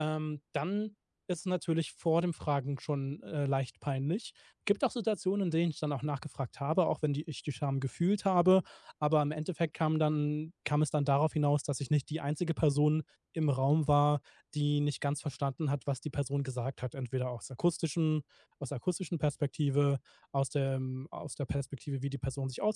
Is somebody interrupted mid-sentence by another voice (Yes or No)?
No